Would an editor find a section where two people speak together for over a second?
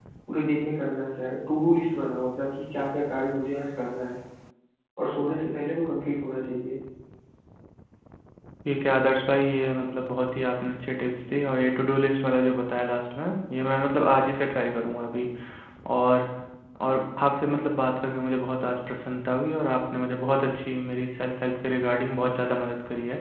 No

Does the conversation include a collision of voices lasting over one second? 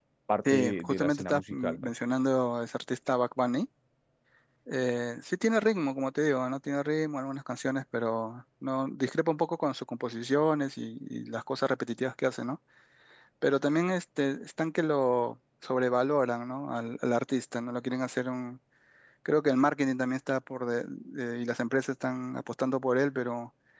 Yes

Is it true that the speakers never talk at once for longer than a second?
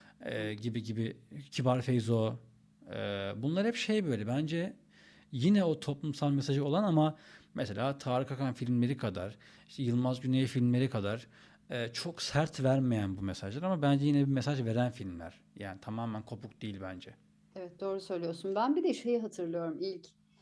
Yes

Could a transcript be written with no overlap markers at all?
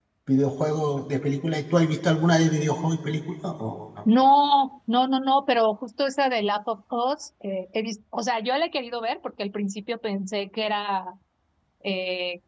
Yes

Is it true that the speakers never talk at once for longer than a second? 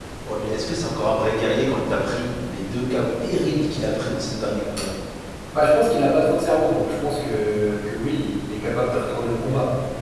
Yes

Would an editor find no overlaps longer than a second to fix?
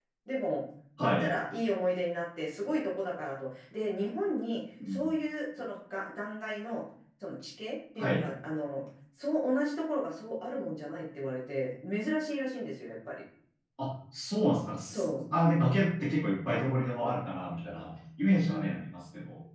Yes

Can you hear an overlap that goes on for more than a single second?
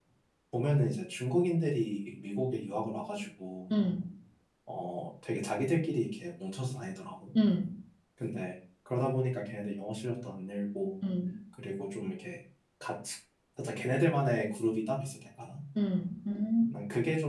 No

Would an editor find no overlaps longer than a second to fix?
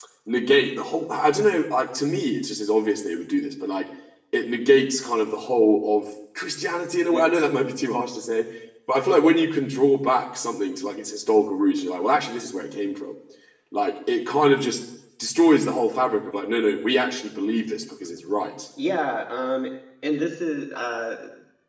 Yes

